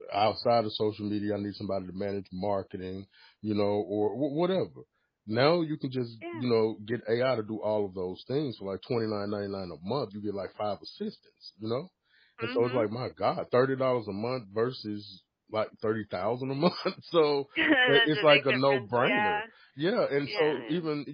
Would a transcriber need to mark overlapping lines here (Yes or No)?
Yes